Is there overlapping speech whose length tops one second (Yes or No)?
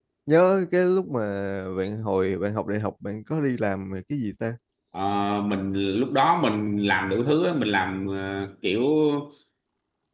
No